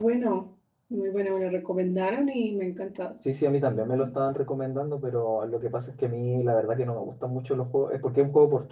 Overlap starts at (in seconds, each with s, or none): none